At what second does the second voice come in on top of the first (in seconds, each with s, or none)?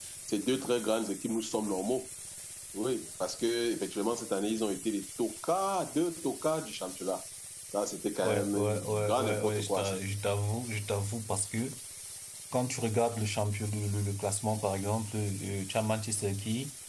8.2 s